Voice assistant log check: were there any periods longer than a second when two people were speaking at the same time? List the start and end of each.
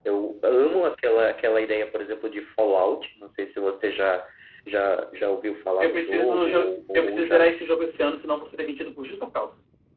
5.8-7.5

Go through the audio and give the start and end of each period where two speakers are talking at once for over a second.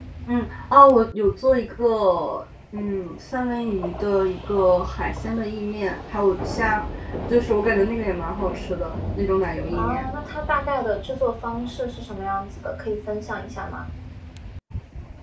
none

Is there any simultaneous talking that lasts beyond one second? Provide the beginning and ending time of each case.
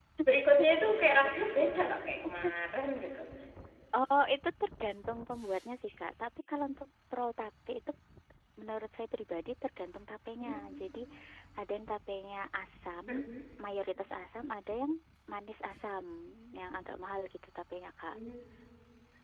none

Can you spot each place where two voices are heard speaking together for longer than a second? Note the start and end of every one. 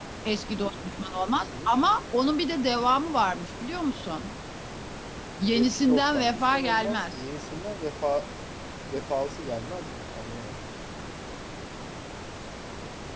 5.5-7.2

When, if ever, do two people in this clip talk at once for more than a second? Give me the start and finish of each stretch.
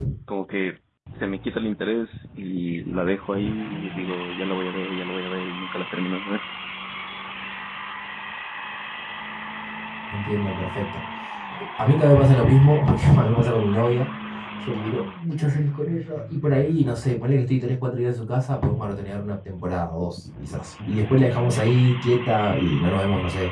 none

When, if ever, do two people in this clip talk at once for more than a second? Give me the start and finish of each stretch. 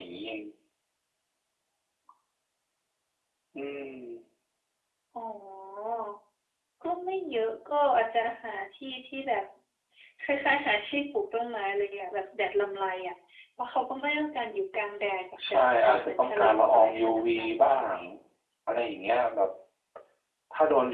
15.5-17.9

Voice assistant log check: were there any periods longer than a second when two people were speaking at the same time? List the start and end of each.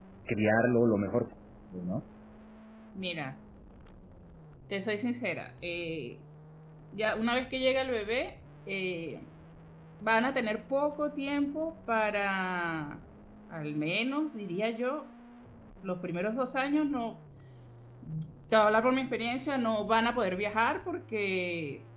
none

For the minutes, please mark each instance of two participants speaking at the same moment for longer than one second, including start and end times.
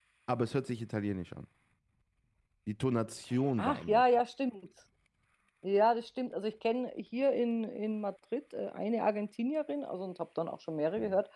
none

